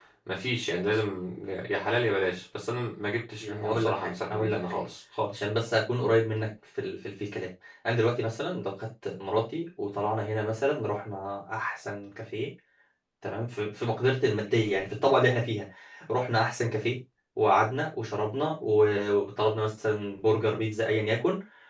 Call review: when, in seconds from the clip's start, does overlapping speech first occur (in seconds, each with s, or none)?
3.4 s